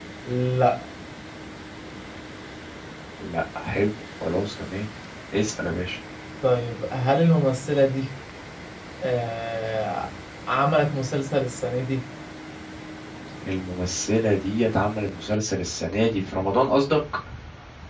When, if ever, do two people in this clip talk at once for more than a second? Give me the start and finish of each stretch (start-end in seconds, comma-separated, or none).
none